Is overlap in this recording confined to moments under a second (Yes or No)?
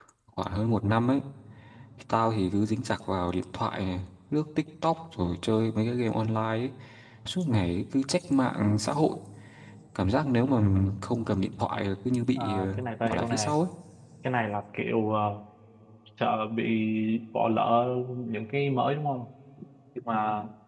No